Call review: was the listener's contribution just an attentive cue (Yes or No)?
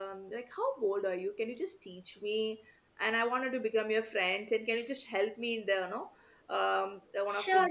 No